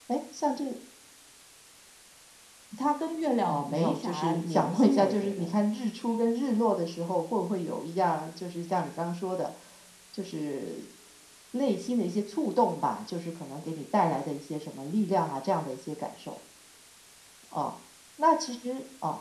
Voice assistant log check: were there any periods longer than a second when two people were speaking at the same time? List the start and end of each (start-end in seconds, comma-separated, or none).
3.5-5.5